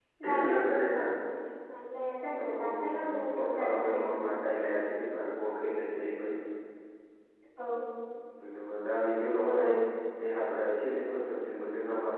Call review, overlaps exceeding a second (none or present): present